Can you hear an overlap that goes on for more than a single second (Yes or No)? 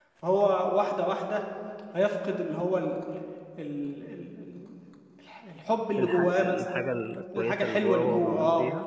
Yes